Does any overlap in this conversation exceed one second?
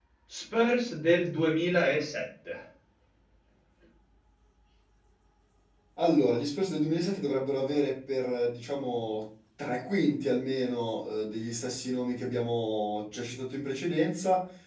No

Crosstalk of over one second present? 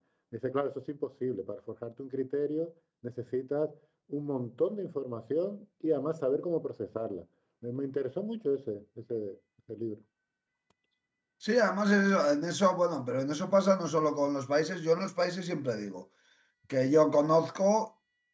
No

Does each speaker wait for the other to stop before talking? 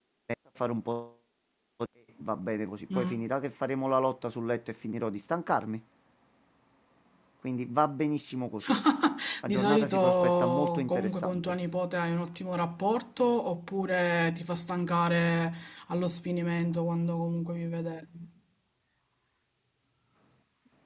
No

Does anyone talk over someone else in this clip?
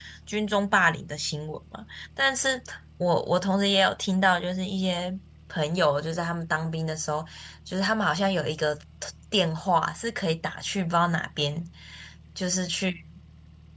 No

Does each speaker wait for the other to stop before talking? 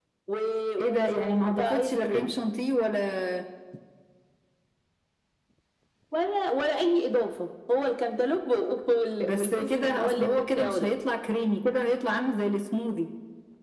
No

